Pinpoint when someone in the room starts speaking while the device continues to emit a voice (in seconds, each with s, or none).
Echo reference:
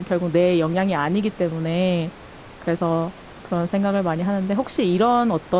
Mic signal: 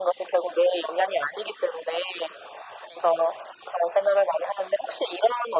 none